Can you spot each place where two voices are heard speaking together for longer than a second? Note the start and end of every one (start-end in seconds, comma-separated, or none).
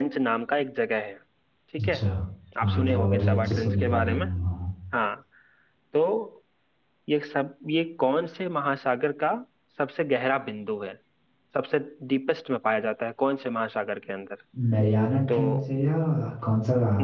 2.6-4.2